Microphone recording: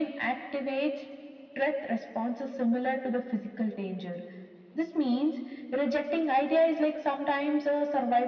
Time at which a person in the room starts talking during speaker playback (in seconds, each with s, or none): none